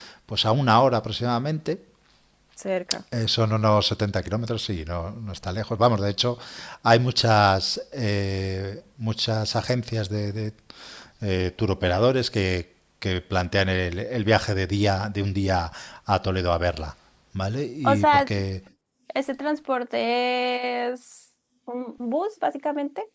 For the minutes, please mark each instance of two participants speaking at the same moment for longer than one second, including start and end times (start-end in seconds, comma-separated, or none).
none